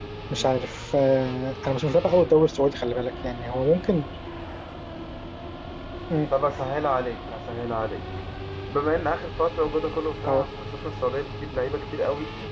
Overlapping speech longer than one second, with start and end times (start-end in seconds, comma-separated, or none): none